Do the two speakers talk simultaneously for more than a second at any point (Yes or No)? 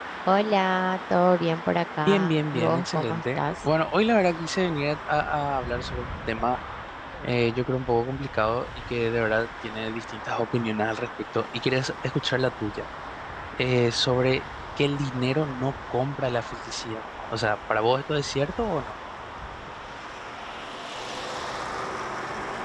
Yes